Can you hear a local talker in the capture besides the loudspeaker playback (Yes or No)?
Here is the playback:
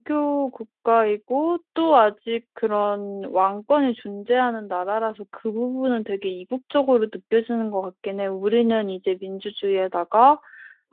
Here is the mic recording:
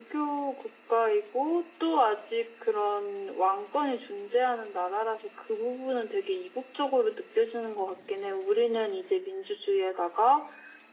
No